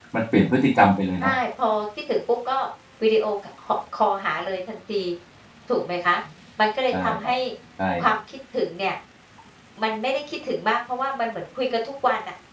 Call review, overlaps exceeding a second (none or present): none